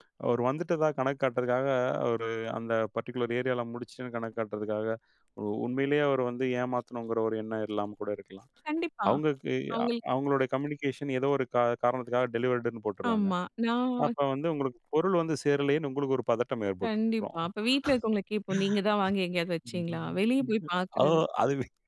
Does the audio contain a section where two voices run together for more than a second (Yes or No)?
No